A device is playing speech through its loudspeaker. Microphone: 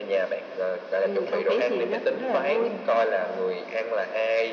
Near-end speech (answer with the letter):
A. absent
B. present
A